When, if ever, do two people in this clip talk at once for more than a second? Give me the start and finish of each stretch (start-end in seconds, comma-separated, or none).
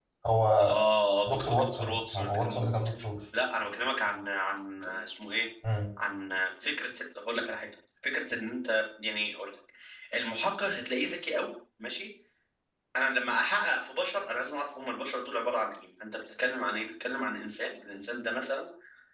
1.3-2.8